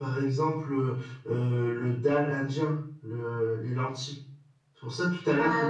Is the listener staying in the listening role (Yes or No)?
Yes